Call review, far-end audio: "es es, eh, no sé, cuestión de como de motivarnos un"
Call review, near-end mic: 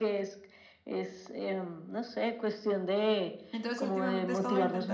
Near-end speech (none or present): present